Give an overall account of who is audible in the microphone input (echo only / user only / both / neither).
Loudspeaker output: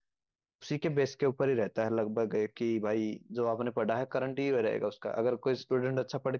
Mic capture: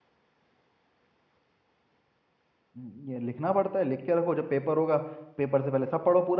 user only